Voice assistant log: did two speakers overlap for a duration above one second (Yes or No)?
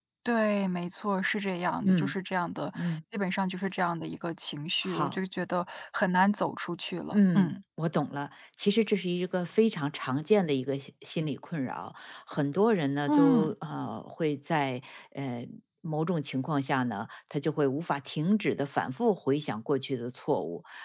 No